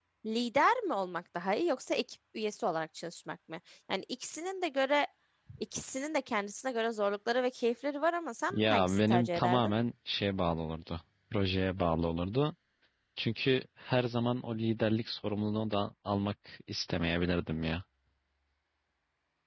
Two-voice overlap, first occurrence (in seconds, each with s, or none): 8.5 s